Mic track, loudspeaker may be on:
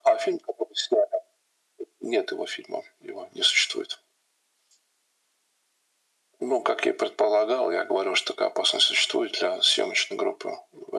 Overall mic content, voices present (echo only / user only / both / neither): echo only